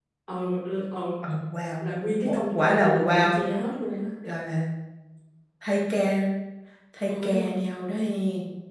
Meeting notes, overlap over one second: present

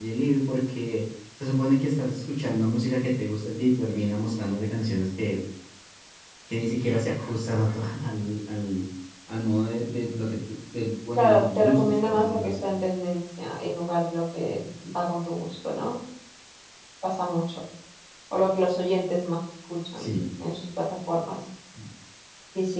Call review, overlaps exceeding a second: present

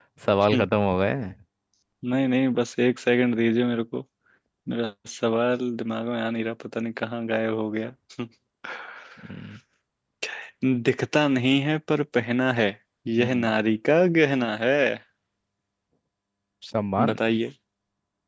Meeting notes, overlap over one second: none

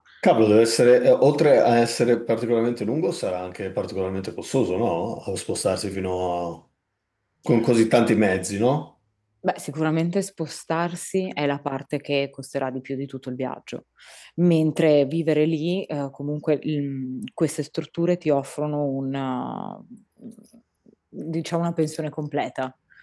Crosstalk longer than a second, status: none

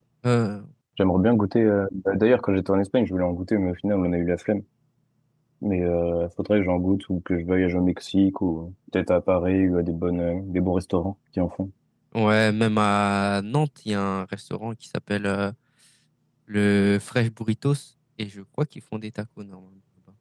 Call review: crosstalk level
none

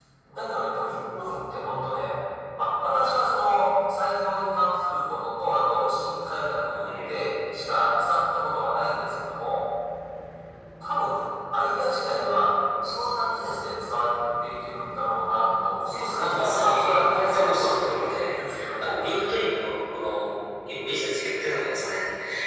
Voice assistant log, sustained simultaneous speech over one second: present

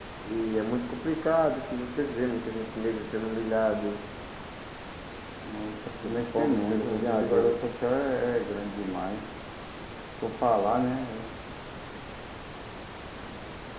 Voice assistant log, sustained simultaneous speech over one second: present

